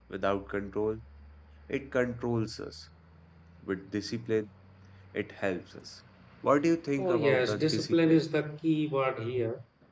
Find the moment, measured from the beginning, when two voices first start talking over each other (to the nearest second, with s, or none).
7 s